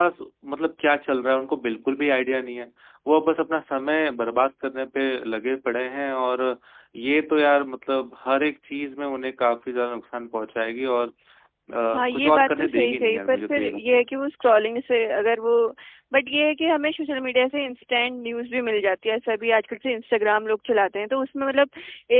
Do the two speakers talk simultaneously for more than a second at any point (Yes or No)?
Yes